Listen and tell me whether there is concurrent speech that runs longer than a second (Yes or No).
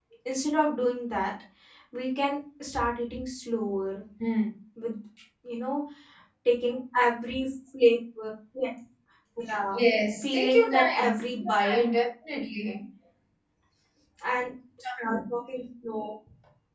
Yes